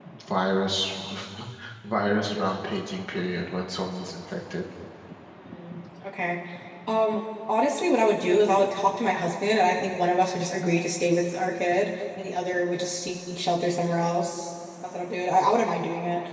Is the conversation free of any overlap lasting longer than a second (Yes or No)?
Yes